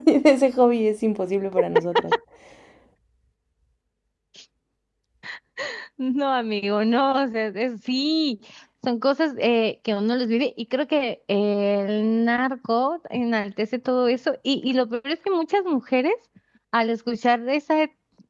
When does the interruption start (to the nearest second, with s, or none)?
none